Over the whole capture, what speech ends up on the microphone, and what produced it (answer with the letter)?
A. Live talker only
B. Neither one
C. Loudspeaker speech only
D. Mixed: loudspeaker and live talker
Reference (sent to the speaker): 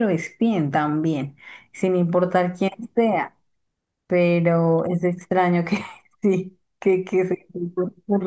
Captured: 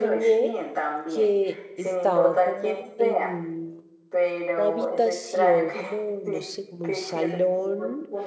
D